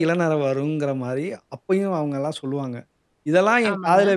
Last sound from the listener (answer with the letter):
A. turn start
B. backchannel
B